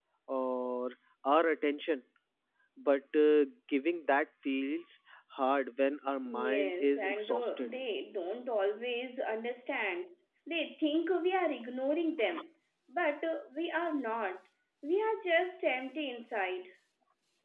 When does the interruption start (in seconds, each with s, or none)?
6.2 s